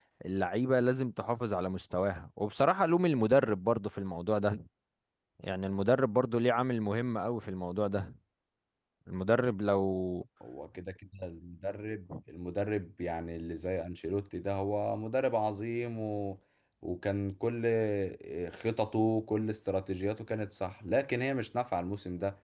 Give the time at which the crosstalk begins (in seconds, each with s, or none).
none